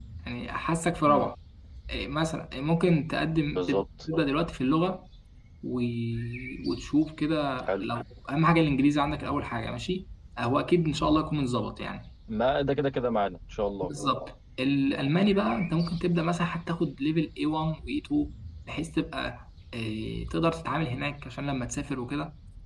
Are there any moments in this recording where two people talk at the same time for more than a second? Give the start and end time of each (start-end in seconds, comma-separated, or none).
none